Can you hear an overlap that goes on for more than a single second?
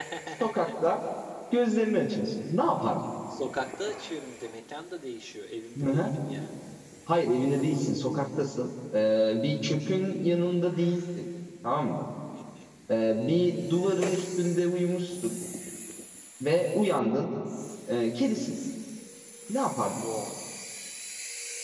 No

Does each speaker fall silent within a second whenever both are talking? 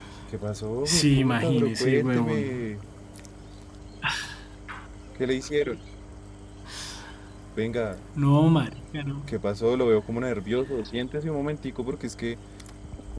No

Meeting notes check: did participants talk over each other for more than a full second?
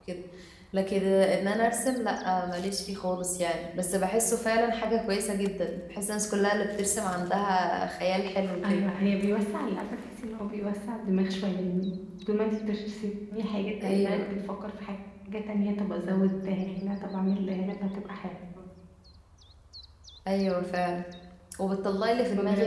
No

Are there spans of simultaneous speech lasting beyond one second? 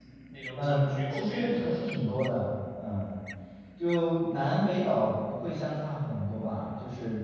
Yes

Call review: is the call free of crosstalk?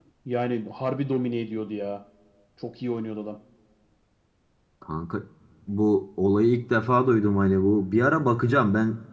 Yes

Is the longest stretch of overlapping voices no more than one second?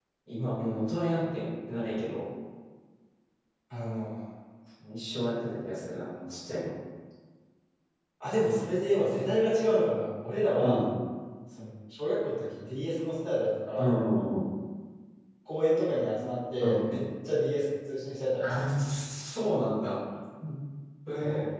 Yes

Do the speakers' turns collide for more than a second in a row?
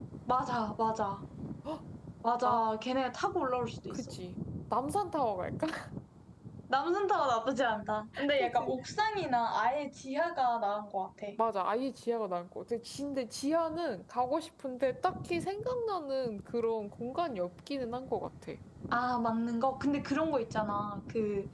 No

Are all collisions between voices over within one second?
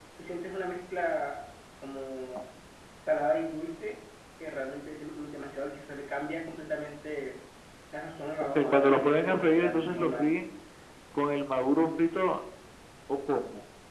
No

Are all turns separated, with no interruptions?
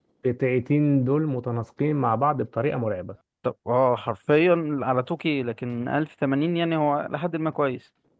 Yes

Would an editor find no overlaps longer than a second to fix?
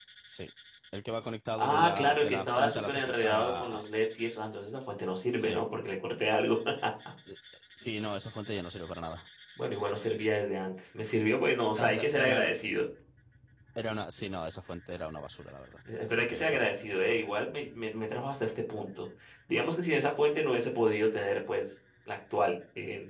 No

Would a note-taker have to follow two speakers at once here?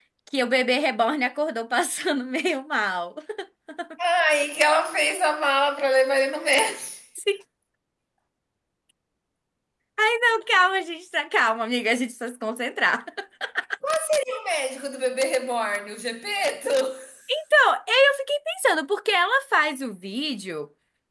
No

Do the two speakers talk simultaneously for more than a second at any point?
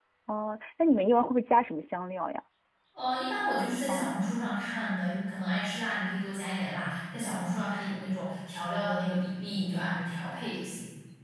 No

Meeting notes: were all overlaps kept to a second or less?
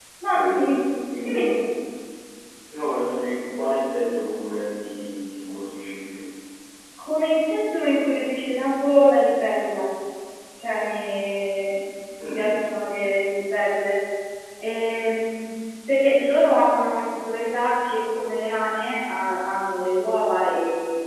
Yes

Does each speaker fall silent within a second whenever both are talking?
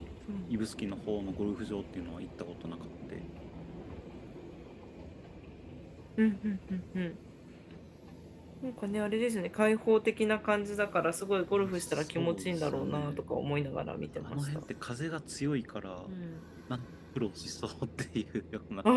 No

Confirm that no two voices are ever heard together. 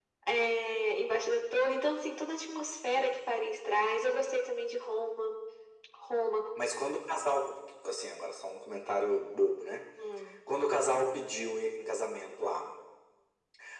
Yes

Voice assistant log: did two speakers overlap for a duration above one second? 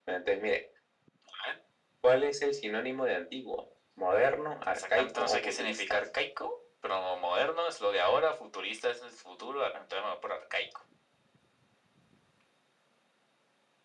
Yes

